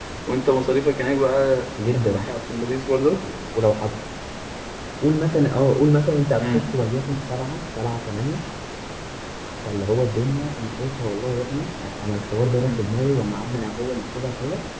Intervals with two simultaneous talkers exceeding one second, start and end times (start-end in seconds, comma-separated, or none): none